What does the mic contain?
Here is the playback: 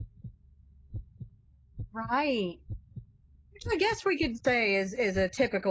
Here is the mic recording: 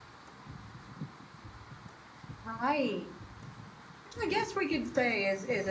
echo only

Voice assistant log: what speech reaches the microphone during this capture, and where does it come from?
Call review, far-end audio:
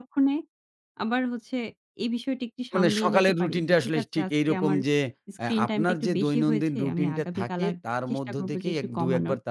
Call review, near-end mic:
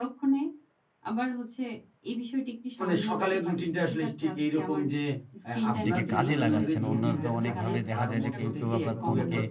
both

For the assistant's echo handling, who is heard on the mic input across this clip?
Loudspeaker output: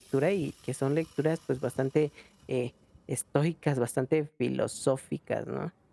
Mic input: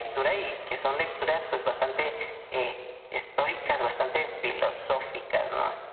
echo only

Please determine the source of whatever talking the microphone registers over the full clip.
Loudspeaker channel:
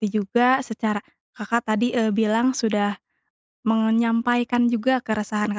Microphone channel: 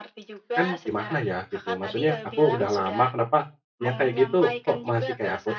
both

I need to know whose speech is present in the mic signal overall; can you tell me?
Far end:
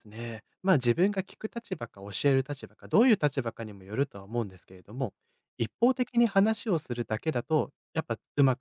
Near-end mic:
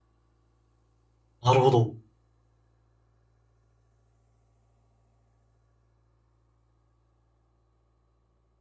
user only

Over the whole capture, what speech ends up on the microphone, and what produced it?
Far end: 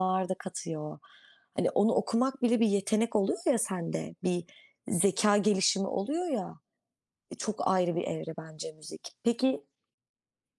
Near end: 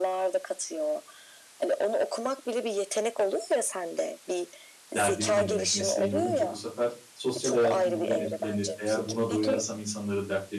both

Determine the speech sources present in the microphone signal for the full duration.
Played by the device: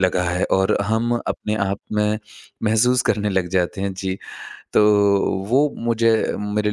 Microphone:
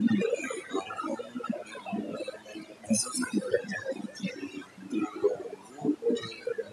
echo only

